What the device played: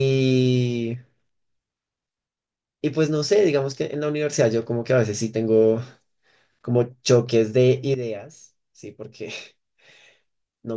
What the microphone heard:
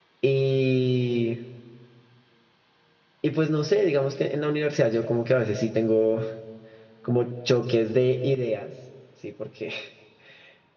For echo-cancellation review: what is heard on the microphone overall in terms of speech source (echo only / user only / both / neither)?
echo only